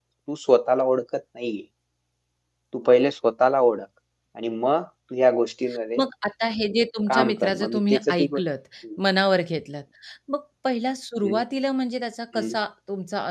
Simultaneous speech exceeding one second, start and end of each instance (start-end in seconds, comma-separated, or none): 7.1-8.4